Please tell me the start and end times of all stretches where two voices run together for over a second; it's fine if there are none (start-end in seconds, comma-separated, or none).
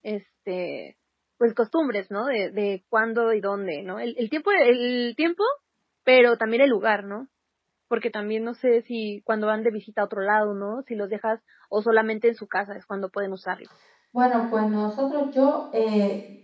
none